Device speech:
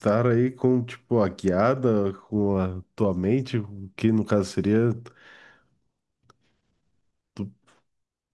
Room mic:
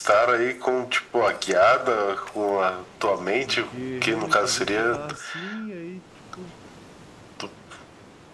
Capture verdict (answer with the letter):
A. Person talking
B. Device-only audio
A